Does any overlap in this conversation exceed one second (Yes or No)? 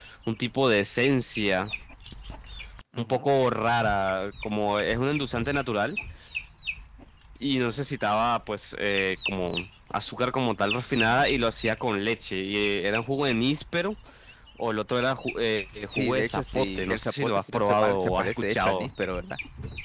Yes